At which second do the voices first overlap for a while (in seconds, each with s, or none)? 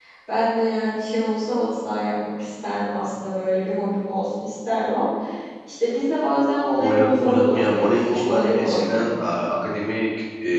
6.8 s